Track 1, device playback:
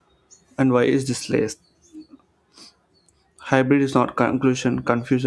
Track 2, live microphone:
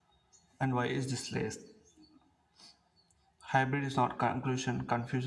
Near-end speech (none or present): none